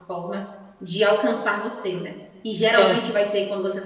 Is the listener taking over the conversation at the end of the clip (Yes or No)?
No